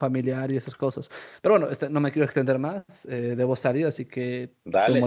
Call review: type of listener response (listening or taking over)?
taking over